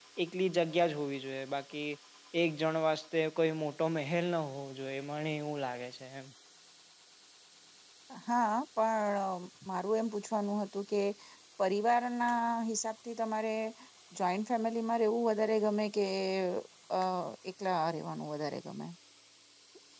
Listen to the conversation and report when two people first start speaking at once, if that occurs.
none

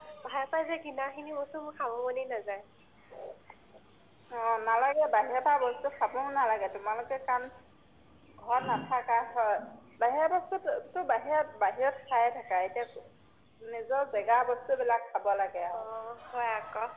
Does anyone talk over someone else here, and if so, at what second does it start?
none

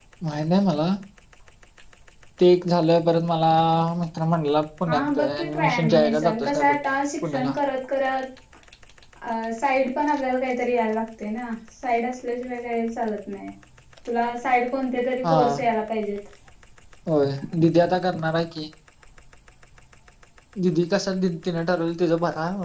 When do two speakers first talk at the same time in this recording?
4.9 s

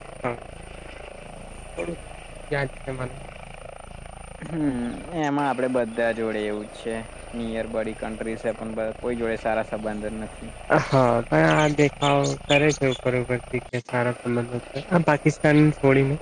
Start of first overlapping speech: none

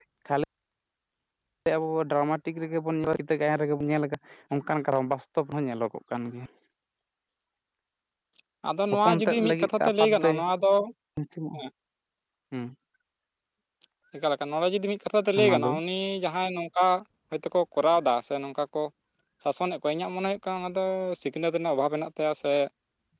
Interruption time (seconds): 9.1 s

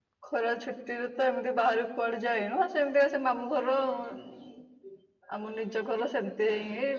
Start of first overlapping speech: none

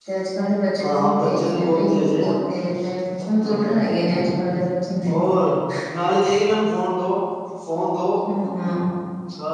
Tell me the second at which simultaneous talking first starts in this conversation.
0.8 s

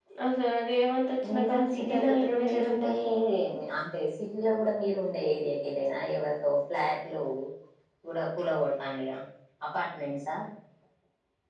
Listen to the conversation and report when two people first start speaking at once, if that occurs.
1.3 s

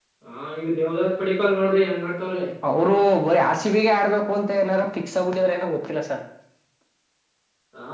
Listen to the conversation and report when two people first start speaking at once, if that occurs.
none

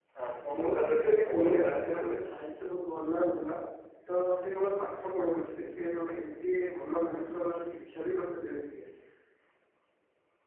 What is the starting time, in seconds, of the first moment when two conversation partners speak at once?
0.6 s

